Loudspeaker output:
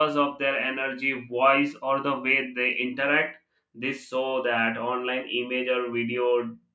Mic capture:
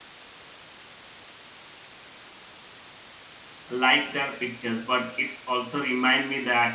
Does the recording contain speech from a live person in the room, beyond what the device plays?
Yes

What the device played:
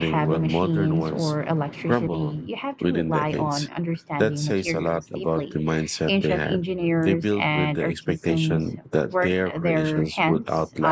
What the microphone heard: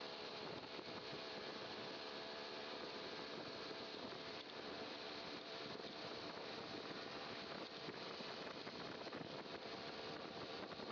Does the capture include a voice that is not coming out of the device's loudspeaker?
No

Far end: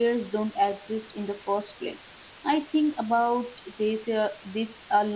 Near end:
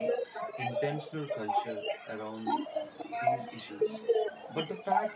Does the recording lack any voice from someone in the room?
No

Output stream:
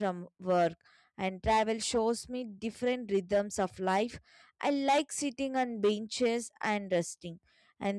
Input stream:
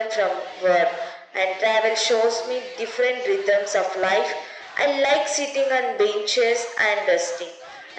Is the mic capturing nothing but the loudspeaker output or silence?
Yes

